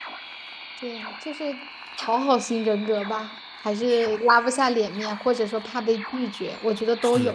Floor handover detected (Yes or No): Yes